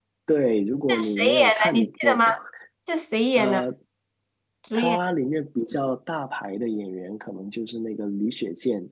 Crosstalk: present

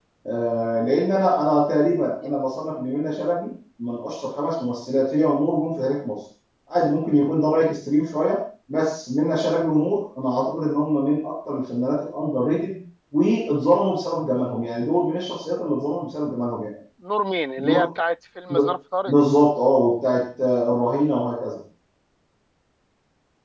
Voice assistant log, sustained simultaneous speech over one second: none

